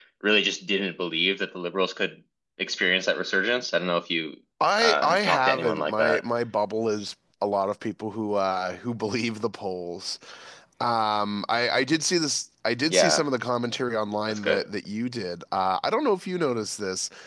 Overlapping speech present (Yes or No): Yes